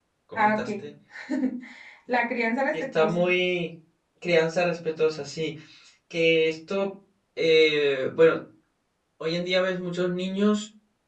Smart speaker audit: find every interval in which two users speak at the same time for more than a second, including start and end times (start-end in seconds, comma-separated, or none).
none